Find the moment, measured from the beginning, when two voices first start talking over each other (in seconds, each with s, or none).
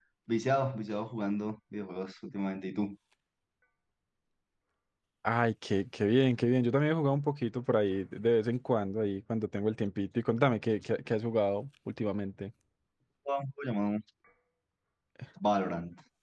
none